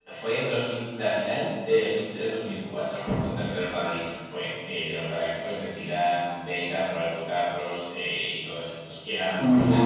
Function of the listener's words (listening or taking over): listening